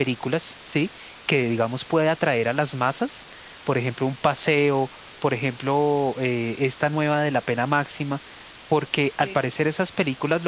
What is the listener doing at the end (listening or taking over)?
listening